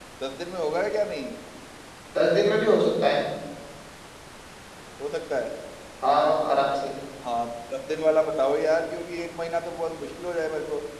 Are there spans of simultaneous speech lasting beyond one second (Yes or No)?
No